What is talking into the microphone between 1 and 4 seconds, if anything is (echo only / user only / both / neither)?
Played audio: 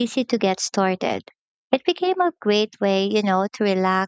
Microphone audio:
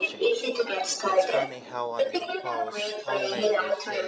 both